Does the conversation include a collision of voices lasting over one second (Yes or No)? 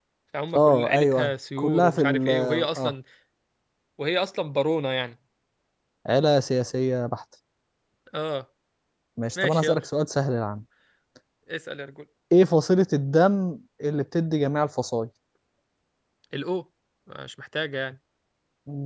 Yes